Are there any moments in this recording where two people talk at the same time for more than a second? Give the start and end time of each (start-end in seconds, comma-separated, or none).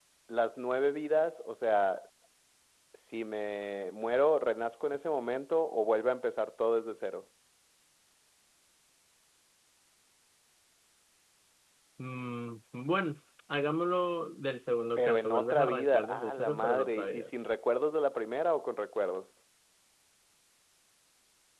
15.0-17.3